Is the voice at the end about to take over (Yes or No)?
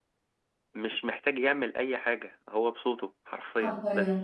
Yes